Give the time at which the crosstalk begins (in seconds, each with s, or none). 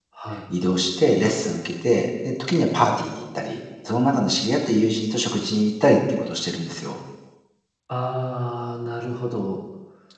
none